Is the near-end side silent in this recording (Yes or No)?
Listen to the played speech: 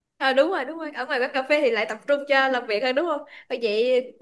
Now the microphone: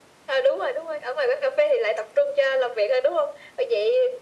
Yes